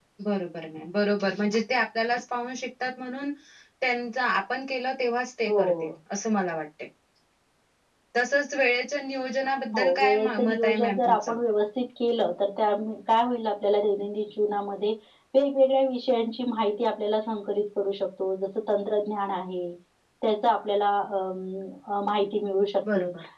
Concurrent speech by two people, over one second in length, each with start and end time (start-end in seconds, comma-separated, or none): 9.8-11.3